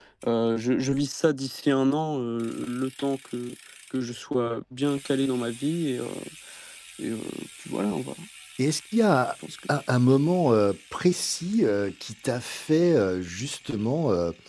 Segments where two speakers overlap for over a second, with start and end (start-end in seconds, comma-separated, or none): none